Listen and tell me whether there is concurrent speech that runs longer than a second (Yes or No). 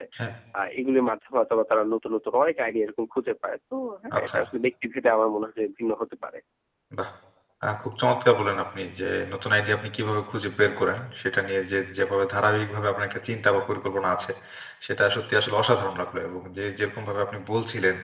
No